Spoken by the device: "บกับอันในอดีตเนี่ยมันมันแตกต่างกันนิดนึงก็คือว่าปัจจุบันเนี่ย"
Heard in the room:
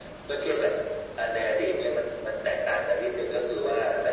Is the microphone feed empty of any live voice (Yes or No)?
Yes